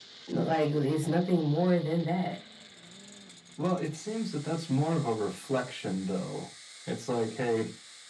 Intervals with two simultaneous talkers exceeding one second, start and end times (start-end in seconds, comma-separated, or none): none